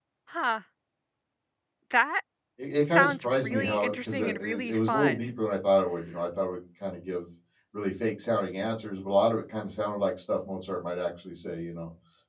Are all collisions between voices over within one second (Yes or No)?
No